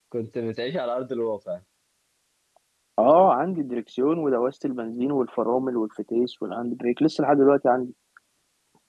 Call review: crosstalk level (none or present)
none